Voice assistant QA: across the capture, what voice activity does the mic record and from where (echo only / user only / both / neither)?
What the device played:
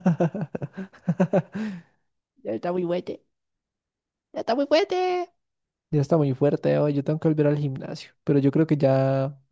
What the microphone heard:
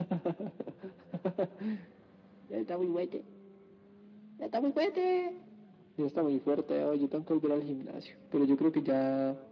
echo only